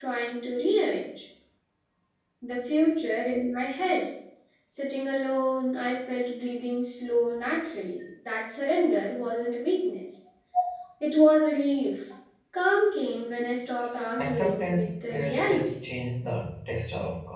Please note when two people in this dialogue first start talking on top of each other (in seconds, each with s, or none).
14.2 s